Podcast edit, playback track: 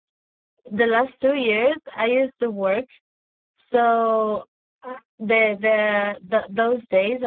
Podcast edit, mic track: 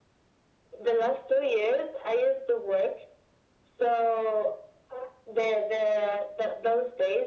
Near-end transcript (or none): none